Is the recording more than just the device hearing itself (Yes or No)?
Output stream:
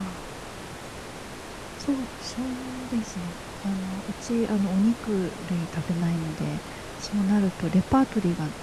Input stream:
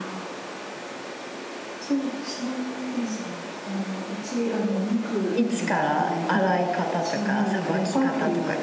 Yes